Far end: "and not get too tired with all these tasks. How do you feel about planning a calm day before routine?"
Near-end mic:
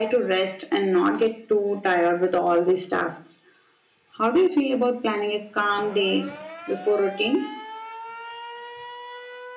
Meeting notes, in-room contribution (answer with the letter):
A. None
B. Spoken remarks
A